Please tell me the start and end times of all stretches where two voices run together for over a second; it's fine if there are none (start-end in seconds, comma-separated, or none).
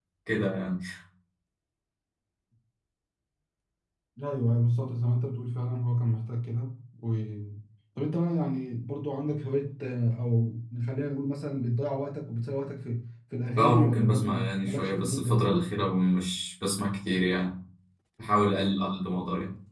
13.6-15.4